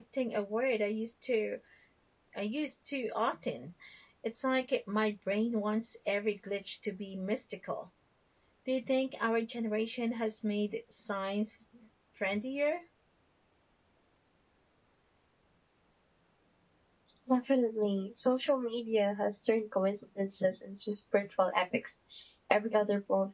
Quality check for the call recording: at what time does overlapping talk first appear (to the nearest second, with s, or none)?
none